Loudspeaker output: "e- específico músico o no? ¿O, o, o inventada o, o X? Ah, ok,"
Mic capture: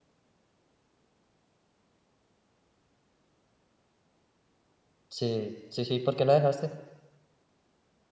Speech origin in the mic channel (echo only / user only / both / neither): user only